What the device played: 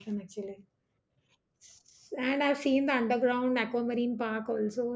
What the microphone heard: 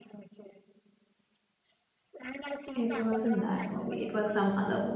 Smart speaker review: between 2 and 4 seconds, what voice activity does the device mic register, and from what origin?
both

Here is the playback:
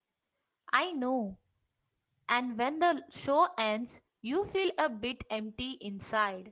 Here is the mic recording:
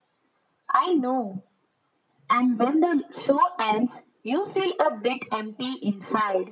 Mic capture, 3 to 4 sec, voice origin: echo only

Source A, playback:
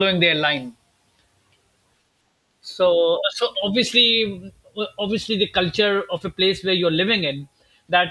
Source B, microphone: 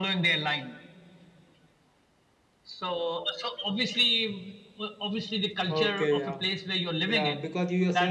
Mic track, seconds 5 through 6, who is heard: both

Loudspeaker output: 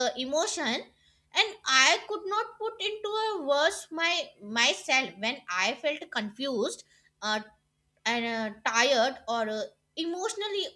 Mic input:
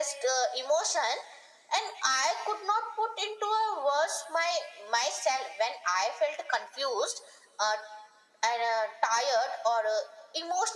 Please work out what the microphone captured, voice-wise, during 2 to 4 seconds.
echo only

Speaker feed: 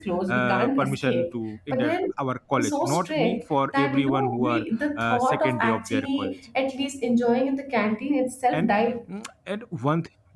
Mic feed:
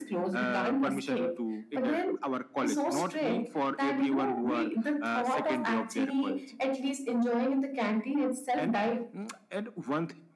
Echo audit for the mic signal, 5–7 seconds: echo only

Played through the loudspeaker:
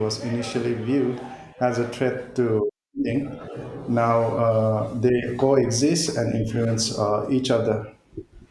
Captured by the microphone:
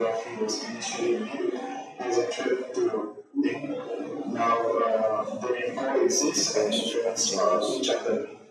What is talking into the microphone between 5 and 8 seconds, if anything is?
both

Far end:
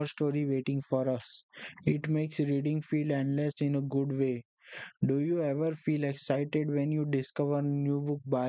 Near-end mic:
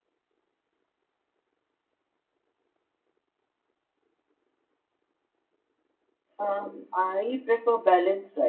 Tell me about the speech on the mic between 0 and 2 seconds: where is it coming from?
neither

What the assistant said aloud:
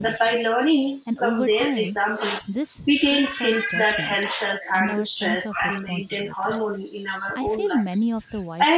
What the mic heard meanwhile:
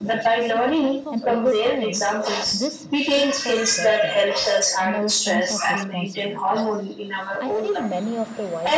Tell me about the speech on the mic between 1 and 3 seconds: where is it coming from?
both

